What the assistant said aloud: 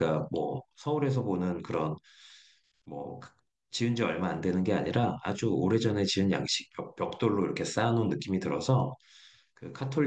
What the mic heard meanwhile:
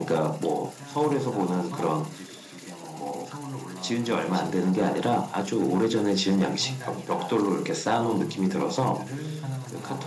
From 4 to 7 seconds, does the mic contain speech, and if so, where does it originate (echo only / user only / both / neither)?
both